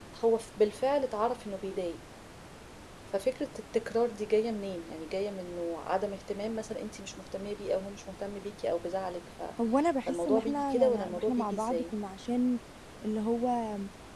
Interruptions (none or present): present